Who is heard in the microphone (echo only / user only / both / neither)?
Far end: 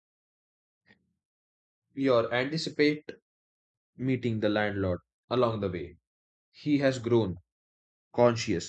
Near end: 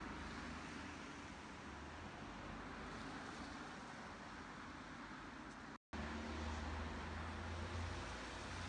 neither